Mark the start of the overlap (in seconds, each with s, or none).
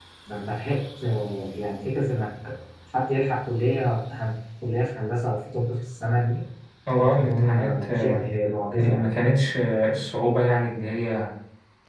7.0 s